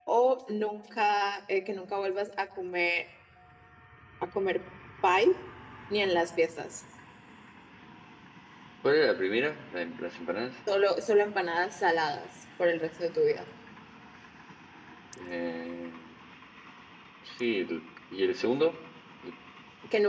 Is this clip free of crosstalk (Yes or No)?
Yes